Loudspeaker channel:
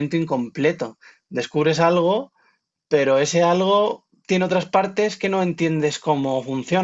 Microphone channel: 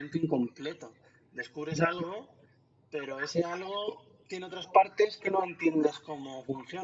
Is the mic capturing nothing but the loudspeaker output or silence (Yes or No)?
Yes